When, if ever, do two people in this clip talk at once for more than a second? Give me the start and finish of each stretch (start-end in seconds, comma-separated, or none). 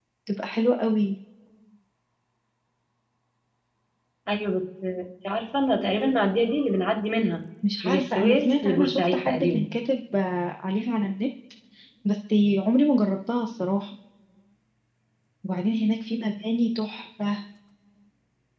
7.8-9.7